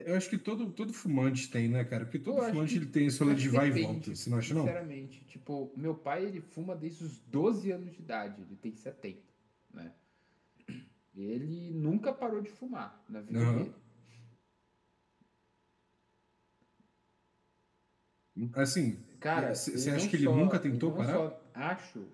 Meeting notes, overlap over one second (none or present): present